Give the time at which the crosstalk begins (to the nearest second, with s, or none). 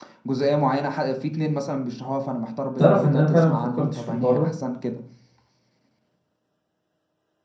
3 s